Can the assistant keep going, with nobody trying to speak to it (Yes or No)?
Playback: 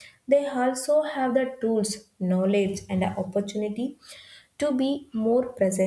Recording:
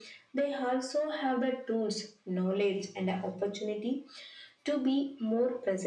Yes